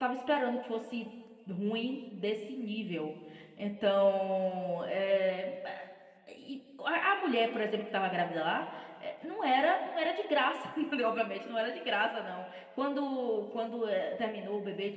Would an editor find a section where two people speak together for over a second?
No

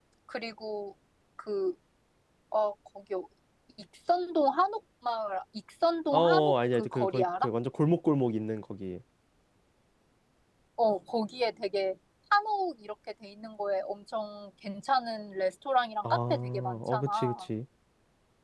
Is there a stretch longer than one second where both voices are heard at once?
Yes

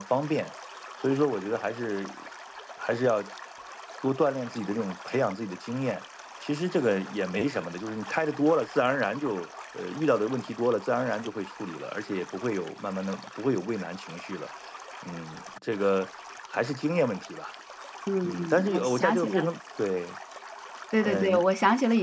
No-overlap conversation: No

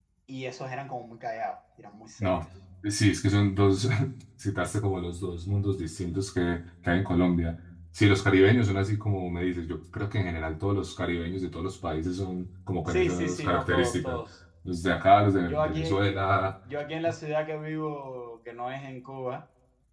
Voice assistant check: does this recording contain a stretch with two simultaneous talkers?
Yes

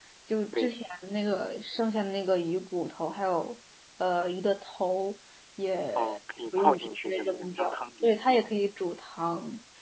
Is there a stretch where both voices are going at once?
Yes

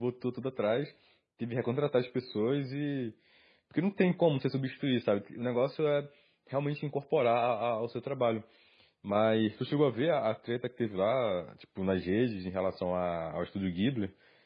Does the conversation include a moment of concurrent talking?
No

